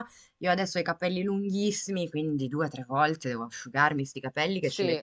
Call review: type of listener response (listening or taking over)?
listening